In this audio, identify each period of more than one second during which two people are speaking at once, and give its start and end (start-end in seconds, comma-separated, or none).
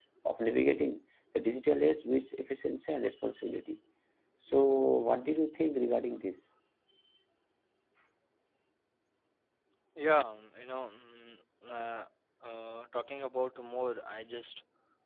none